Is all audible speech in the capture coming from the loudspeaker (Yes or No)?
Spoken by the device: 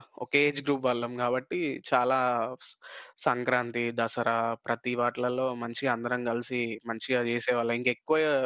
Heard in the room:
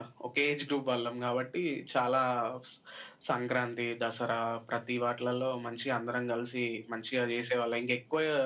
Yes